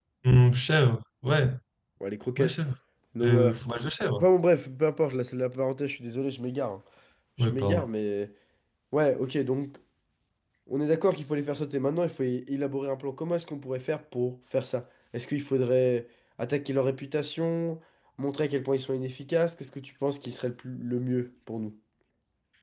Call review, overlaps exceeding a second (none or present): none